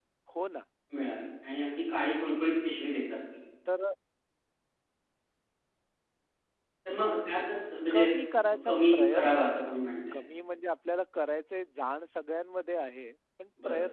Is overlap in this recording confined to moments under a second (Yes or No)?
No